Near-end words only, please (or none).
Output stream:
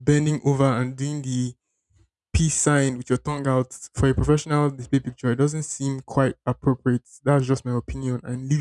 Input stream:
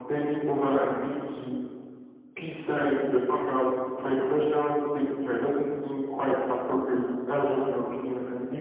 none